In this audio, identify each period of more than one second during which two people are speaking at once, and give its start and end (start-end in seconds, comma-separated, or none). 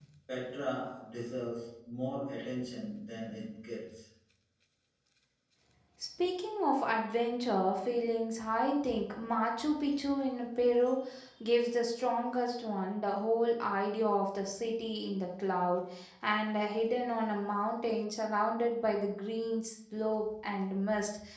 none